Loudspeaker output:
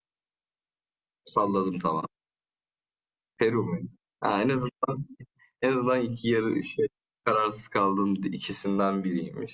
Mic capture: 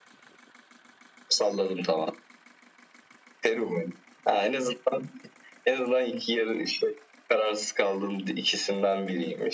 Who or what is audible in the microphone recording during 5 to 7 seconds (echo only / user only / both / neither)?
echo only